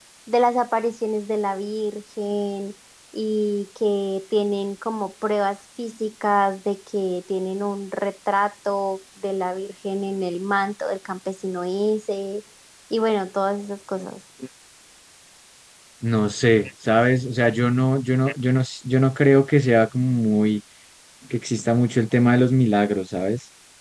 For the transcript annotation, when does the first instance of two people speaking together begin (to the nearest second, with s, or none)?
none